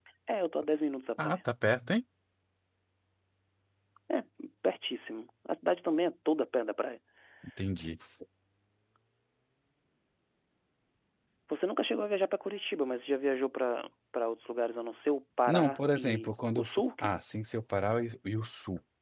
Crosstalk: present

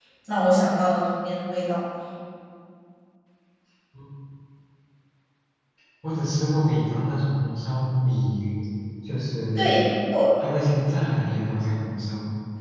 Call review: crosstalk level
none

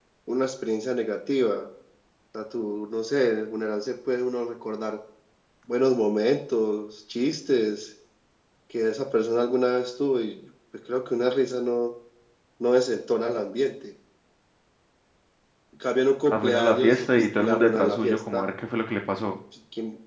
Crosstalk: present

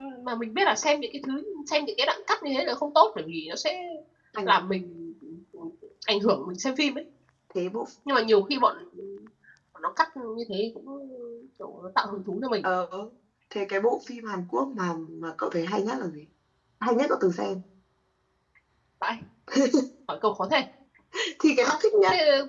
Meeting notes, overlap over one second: none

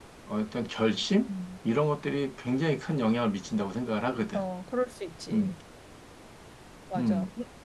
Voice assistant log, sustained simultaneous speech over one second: none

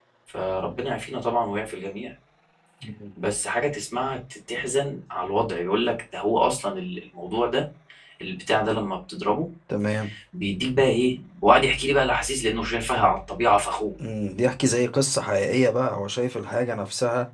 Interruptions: none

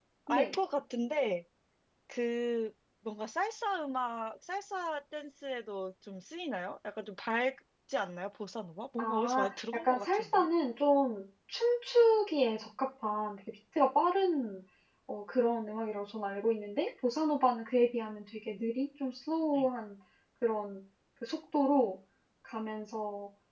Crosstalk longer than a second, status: present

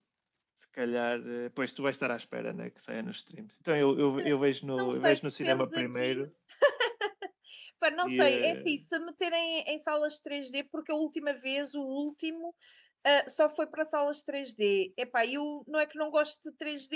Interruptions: present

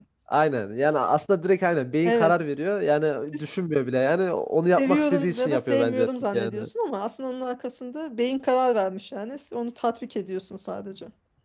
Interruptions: present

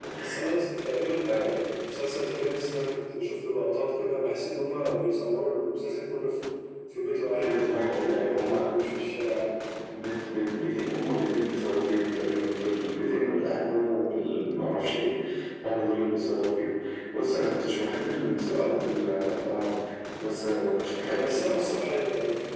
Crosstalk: present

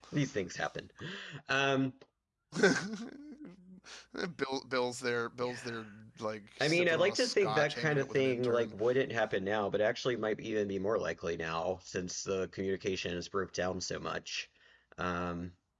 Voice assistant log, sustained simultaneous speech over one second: present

